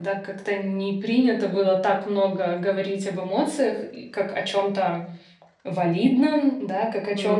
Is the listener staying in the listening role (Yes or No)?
Yes